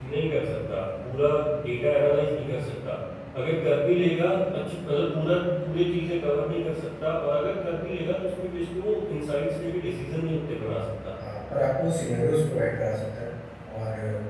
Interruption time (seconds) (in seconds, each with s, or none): none